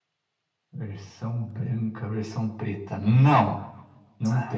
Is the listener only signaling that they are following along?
No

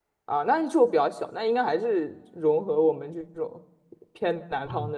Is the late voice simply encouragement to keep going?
No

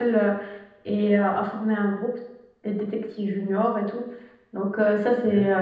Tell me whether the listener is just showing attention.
Yes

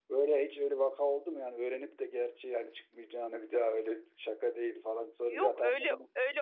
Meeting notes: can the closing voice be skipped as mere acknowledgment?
No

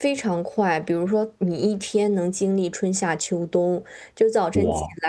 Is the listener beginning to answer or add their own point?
No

